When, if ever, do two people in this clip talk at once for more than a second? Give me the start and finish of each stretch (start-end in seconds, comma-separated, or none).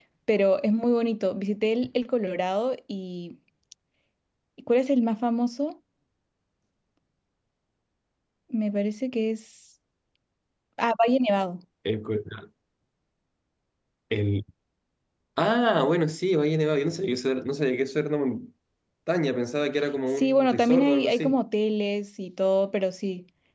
20.2-21.4